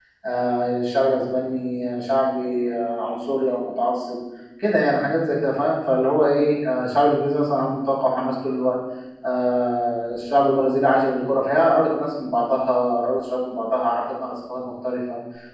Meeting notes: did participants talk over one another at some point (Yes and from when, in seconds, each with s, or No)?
No